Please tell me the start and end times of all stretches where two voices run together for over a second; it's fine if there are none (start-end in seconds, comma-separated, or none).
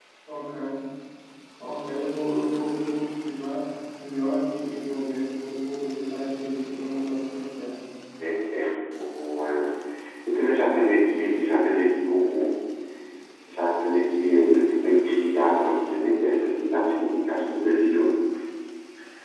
none